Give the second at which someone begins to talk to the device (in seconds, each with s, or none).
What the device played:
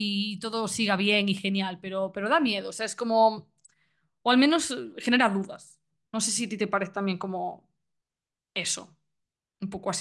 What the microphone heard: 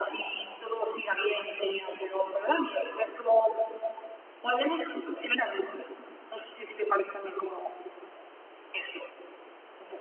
none